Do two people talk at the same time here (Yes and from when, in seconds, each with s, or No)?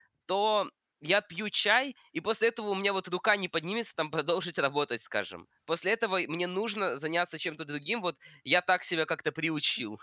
No